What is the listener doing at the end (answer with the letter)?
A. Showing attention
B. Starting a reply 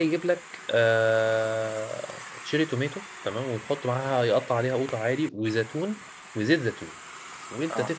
A